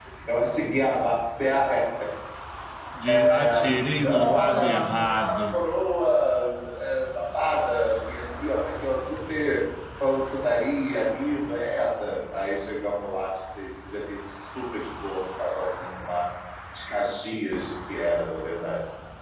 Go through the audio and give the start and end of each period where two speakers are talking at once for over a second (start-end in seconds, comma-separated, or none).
3.3-5.5